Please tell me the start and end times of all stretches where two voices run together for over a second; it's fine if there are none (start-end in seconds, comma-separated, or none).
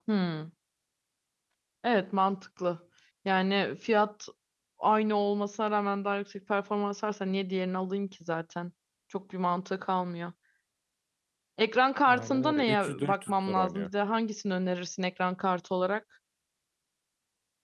12.1-13.9